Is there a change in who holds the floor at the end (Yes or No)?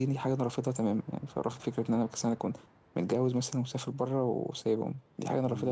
Yes